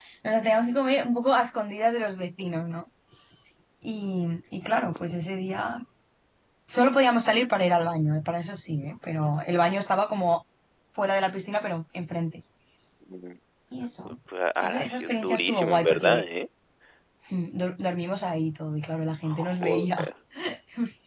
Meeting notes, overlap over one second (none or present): present